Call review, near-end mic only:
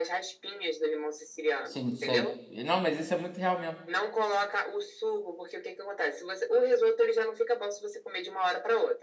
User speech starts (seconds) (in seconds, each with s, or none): 1.6 s